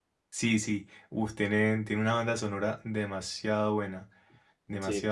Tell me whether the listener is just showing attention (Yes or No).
No